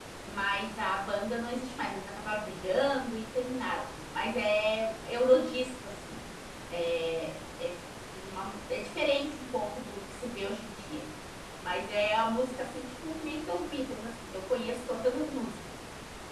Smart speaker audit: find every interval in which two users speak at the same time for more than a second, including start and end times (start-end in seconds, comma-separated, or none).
none